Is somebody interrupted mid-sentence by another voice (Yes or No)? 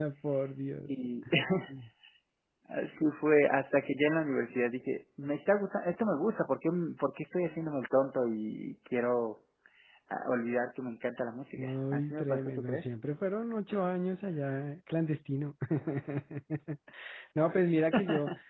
Yes